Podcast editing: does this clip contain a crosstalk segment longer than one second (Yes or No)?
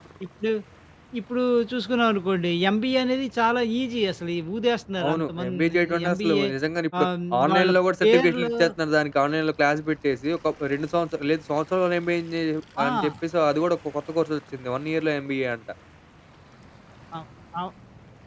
Yes